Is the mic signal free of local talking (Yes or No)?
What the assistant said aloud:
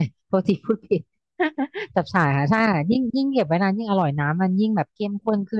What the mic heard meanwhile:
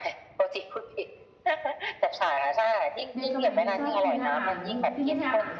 No